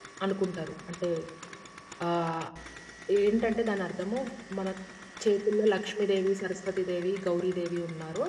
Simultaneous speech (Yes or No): No